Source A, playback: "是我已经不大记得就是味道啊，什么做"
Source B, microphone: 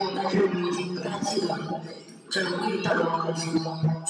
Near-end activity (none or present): none